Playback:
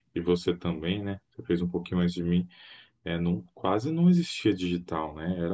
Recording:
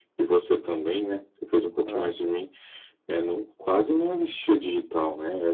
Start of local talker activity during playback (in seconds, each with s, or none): 1.8 s